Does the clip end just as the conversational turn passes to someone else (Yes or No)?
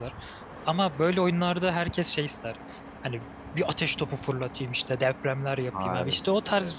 No